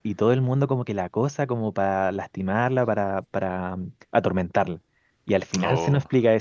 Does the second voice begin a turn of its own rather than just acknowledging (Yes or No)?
No